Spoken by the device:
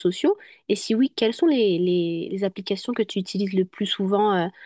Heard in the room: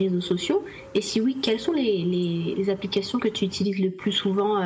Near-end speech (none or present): none